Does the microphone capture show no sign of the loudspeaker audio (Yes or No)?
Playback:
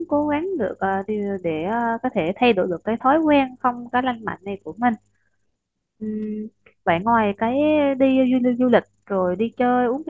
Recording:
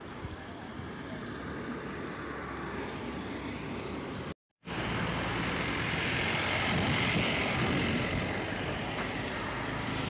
Yes